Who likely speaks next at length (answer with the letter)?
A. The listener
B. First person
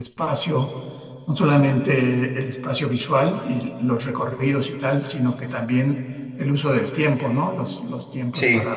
B